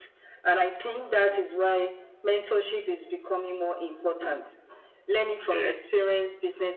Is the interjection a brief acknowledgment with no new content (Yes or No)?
Yes